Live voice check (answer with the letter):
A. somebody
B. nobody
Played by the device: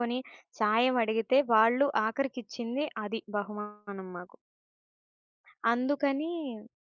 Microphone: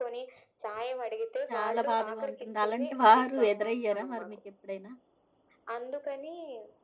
A